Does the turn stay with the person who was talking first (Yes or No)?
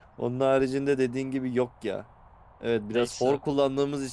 Yes